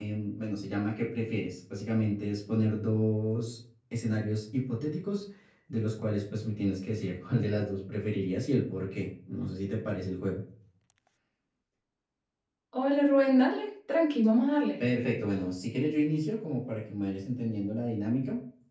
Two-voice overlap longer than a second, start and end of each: none

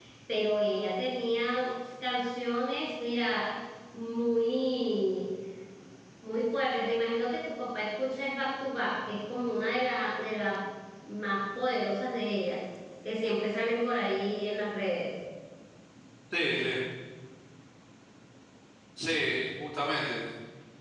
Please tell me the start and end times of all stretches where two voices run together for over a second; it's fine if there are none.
none

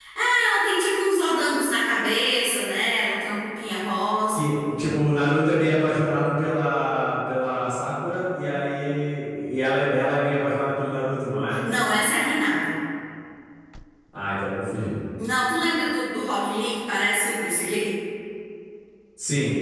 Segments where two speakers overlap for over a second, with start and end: none

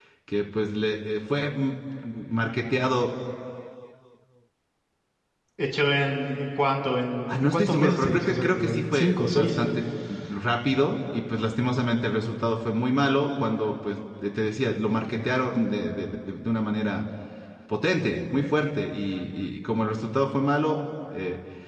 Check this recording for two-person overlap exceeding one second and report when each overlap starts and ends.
7.3-9.6

